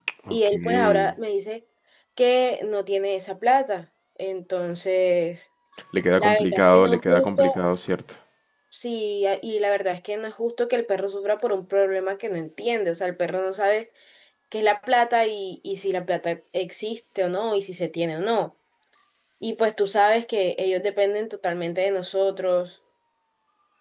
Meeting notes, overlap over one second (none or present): present